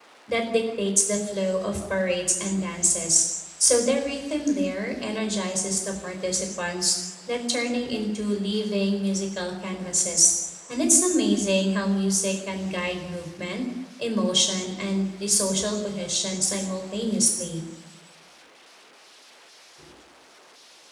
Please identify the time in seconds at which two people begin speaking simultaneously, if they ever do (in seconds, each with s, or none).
none